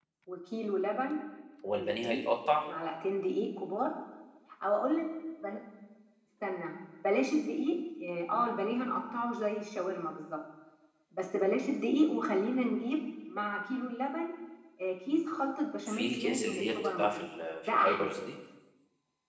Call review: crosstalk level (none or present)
present